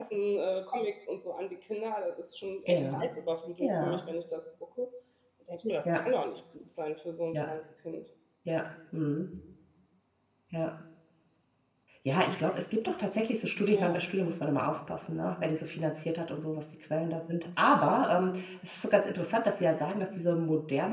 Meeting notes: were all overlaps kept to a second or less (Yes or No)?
Yes